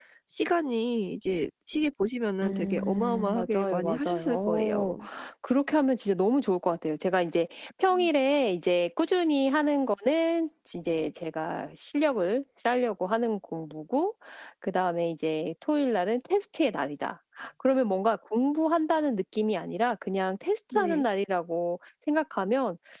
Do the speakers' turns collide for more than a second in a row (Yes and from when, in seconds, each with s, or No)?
Yes, from 2.4 s